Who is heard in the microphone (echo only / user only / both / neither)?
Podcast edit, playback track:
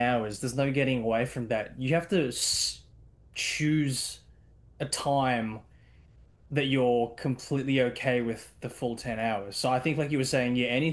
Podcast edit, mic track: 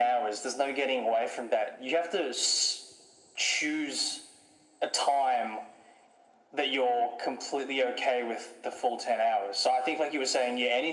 echo only